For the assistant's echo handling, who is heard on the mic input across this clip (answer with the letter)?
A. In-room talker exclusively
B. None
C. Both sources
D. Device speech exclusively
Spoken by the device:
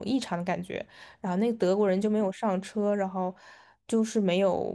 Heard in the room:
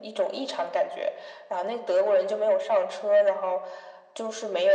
D